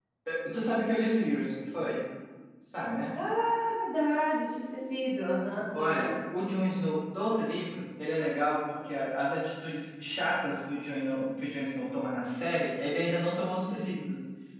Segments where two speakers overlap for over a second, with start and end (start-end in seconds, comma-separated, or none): none